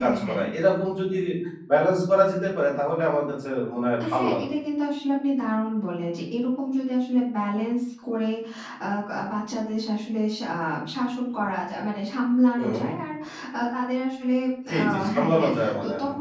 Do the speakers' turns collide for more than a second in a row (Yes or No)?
Yes